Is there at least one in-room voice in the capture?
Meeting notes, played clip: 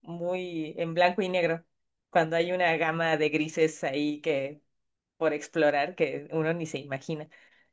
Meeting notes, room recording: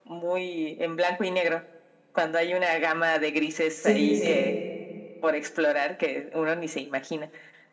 Yes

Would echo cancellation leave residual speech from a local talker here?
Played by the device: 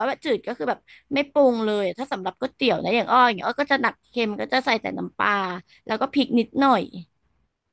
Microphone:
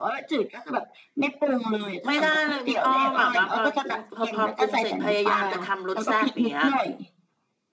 Yes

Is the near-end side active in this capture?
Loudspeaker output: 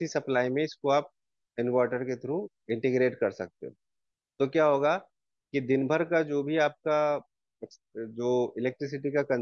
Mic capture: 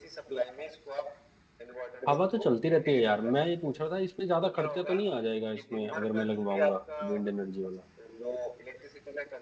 Yes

